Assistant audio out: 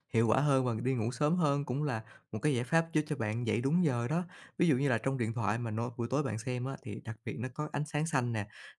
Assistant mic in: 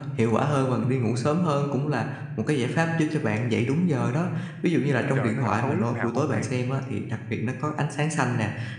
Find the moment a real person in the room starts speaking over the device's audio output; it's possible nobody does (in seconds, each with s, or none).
4.7 s